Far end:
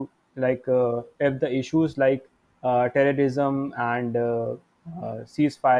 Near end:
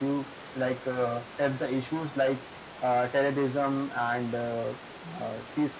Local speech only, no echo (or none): none